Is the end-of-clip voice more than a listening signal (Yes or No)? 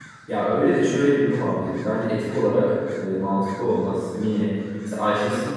No